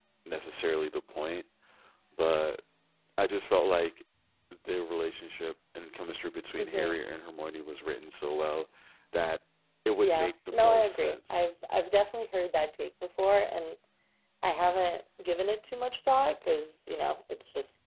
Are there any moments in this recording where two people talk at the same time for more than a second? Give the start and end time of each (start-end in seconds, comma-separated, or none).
10.0-11.4